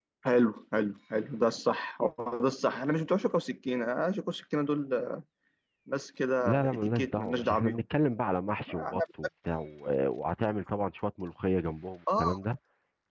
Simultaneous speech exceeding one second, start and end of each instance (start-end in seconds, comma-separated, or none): 6.5-7.8